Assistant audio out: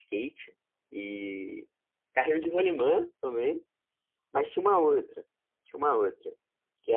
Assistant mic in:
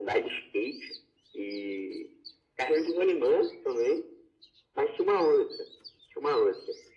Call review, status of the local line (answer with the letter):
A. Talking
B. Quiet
B